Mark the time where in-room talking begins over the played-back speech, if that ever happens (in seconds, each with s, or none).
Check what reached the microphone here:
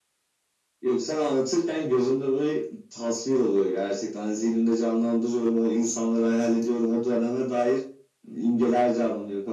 none